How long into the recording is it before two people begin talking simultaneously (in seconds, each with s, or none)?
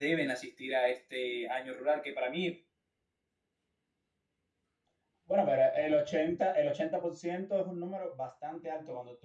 none